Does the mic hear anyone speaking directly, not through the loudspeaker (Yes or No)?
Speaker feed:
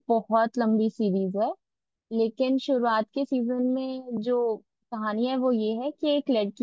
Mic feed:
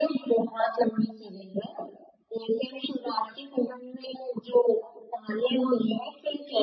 No